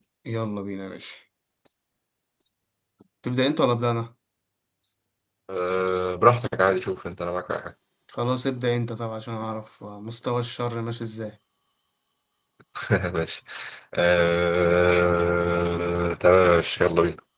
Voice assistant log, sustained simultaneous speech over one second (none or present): none